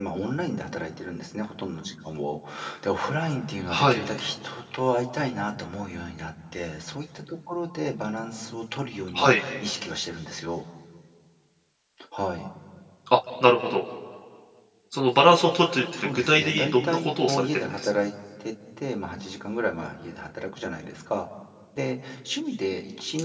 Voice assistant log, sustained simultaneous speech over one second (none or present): present